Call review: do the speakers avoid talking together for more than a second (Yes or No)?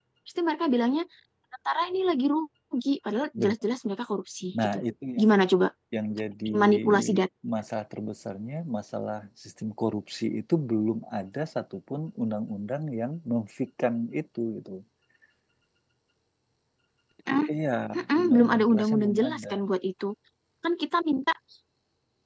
No